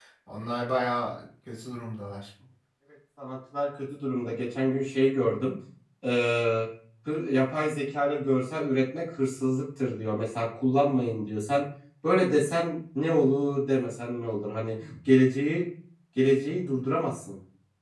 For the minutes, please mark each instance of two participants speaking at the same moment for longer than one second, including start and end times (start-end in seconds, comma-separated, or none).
none